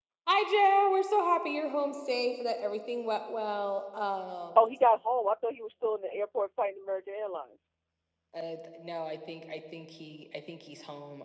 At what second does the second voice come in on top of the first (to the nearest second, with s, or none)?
none